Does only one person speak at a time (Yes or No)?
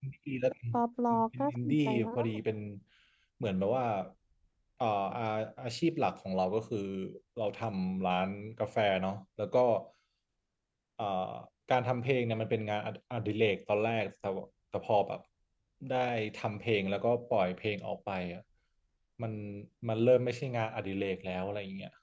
No